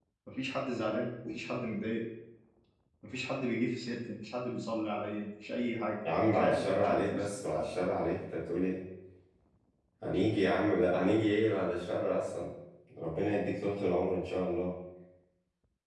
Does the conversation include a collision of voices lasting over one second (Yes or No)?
Yes